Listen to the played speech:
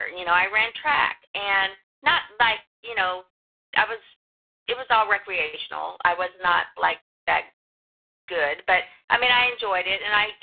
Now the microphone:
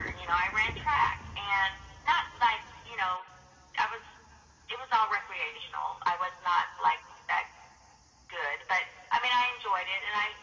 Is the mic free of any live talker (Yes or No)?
Yes